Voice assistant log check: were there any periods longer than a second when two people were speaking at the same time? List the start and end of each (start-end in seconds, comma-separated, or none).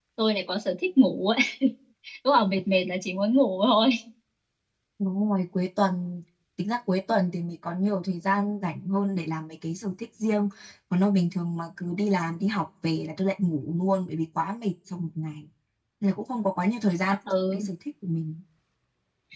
none